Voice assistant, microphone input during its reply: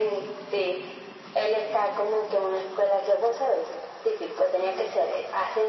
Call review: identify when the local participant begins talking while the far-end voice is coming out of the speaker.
none

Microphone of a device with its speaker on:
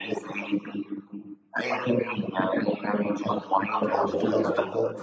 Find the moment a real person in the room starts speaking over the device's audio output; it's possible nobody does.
3.9 s

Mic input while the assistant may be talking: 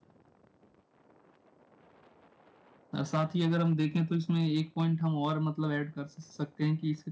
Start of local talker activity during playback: 2.9 s

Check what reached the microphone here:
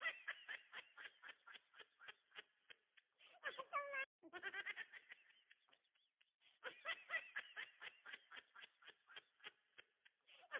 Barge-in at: none

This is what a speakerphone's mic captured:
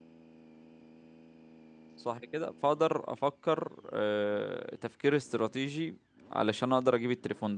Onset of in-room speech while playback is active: 2.0 s

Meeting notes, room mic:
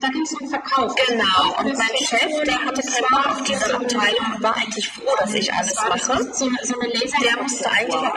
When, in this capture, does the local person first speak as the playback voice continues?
none

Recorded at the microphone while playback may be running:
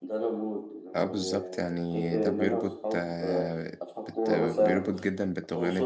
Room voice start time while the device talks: 1.0 s

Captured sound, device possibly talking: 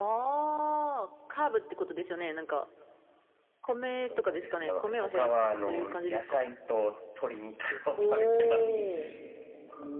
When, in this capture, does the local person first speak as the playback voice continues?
8.3 s

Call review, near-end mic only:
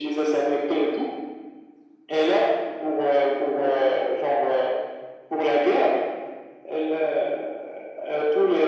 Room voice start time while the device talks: none

